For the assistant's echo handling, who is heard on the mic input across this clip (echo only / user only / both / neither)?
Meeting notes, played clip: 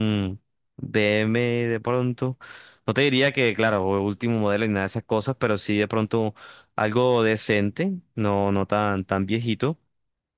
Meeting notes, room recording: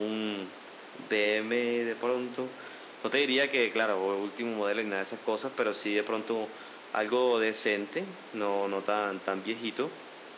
echo only